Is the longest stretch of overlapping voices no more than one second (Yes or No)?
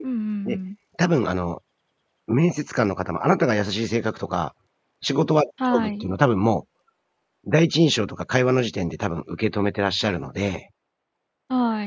Yes